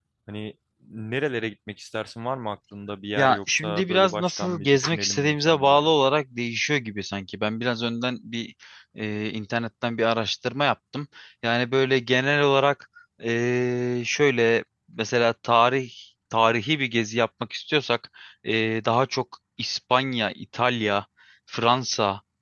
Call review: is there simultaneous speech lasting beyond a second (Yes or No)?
Yes